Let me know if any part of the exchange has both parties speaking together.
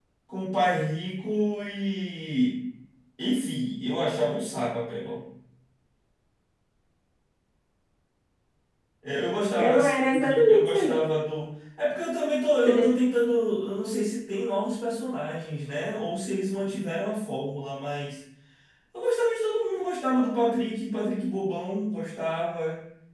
Yes, from 9.6 s

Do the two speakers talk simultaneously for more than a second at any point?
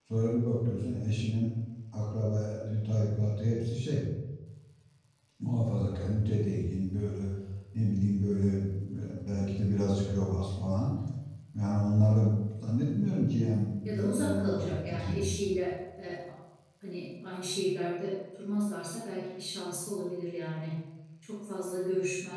Yes, from 13.8 s

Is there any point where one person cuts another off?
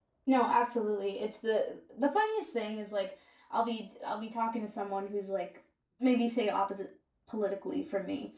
No

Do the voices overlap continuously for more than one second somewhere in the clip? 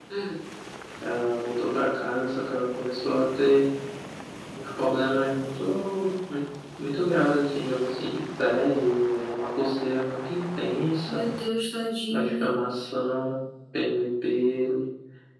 No

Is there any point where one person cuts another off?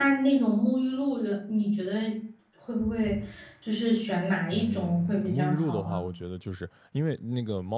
Yes, from 4.5 s

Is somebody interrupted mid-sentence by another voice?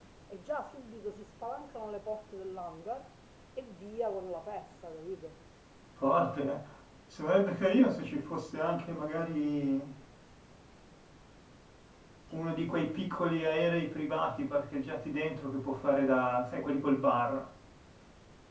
No

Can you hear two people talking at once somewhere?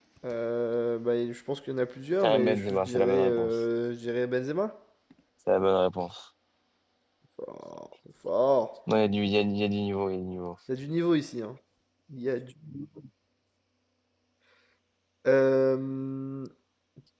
Yes, from 2.2 s

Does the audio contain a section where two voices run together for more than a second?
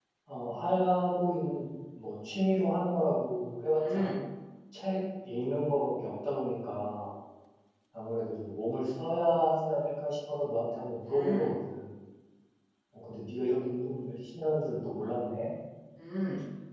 No

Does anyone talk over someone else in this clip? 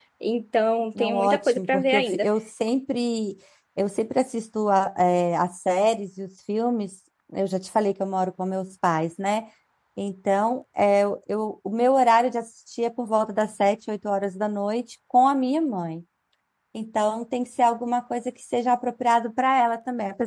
Yes, from 1.0 s

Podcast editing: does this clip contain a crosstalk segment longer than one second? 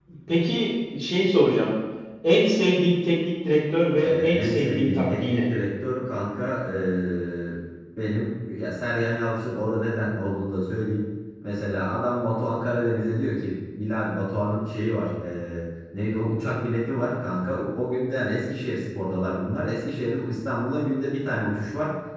Yes, from 4.0 s

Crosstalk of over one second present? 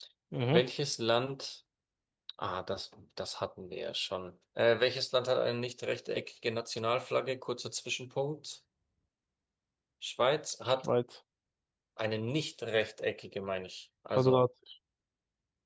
No

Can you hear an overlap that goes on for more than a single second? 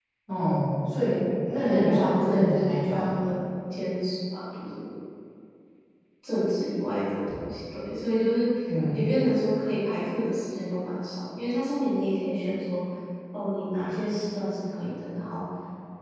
Yes, from 1.6 s

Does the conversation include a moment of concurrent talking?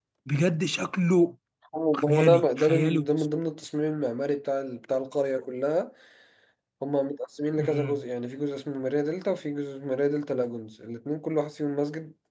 Yes, from 2.0 s

